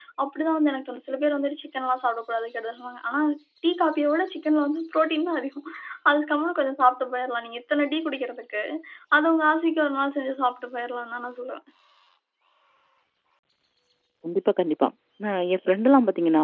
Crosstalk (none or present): none